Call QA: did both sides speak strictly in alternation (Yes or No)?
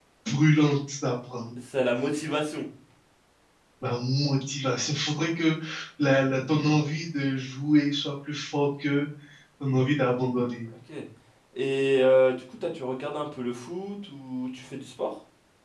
Yes